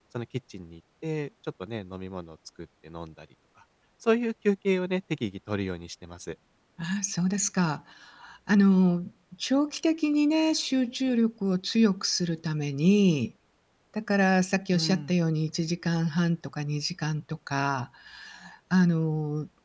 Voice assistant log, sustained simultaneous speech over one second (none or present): none